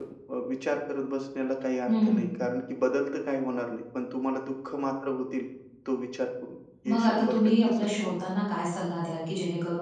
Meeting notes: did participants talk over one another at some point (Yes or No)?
Yes